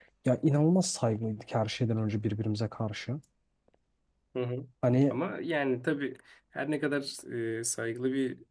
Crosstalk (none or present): none